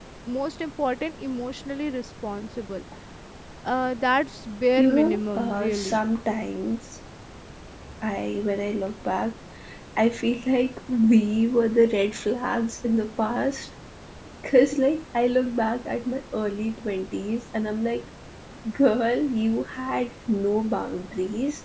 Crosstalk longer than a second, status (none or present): present